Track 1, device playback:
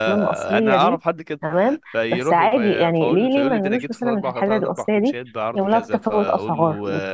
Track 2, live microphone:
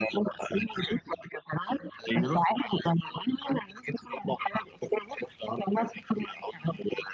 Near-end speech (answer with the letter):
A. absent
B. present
A